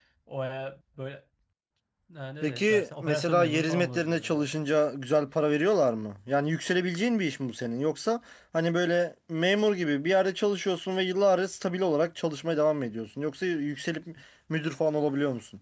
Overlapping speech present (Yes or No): Yes